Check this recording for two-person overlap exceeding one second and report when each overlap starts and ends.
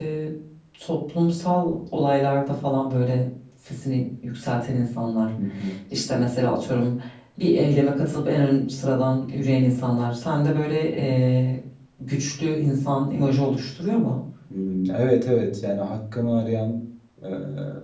none

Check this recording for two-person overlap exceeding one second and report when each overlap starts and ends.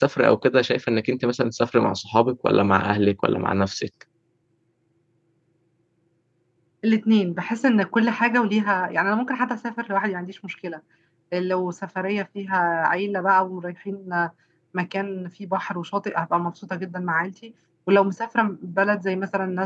none

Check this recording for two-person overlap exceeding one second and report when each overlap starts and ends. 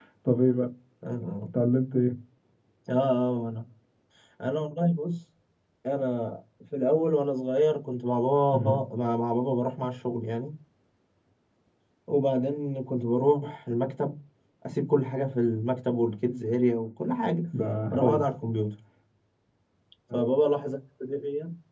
none

